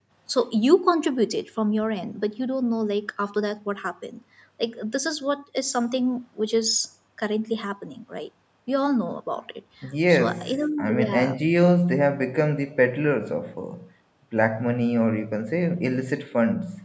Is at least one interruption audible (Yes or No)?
Yes